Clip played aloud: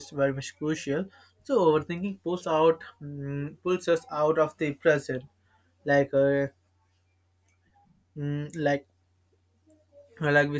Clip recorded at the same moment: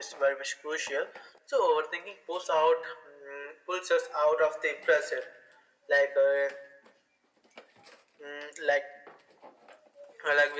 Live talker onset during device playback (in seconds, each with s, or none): none